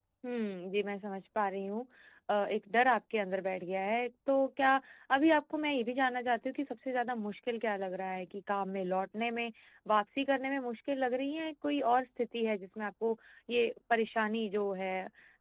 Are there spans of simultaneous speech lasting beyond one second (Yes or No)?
No